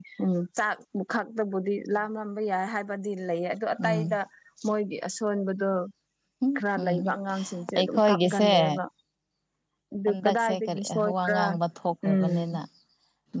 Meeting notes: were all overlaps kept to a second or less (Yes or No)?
No